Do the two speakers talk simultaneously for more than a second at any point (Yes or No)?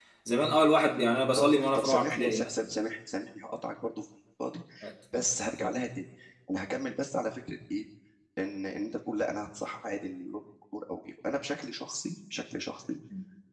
Yes